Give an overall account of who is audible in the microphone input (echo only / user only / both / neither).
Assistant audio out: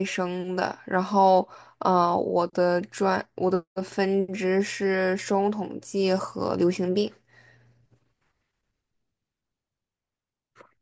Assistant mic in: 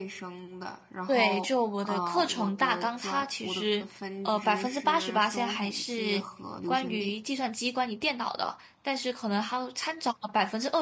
both